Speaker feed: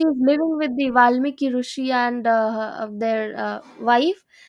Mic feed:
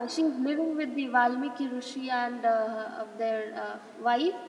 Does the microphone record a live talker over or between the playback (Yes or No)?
No